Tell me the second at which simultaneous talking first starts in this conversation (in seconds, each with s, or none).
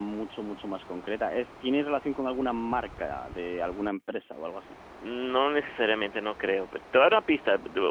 none